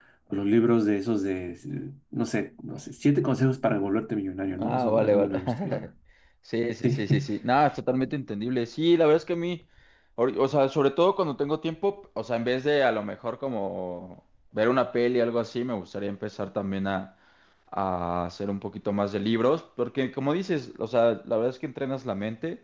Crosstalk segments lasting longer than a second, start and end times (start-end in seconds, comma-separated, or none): 4.6-5.9